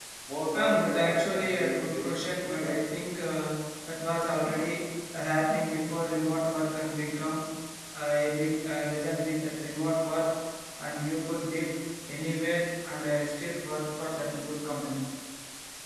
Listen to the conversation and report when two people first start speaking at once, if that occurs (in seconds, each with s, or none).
0.5 s